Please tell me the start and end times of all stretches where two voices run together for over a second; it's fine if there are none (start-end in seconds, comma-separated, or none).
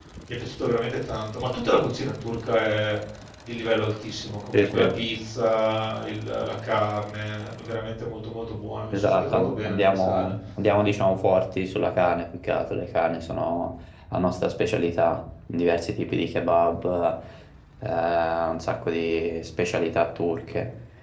8.9-10.3